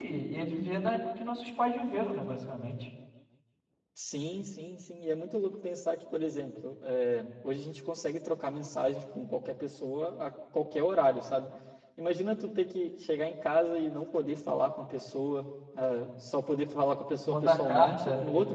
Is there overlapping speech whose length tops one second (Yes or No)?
Yes